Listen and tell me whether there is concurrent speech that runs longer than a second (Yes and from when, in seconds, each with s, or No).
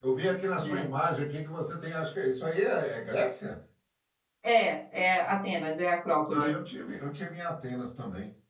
No